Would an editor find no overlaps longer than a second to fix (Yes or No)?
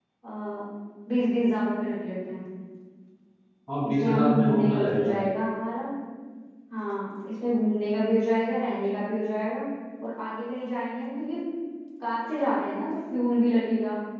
No